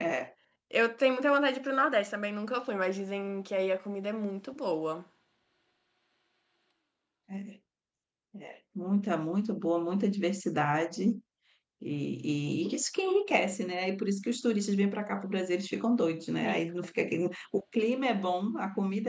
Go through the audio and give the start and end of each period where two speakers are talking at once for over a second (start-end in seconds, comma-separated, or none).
none